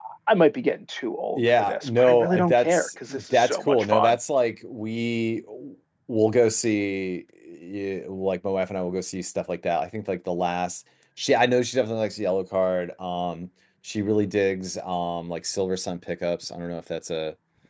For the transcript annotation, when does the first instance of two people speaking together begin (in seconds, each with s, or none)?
1.4 s